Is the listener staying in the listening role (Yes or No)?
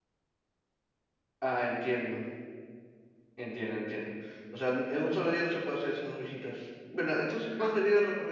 Yes